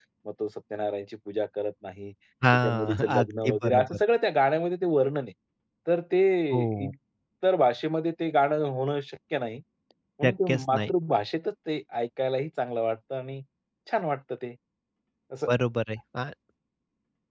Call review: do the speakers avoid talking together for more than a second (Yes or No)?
No